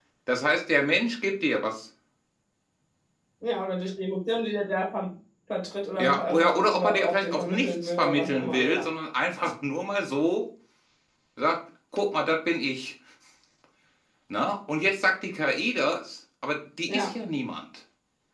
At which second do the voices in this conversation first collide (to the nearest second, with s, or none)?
6 s